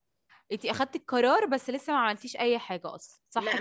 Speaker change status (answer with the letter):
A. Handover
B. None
A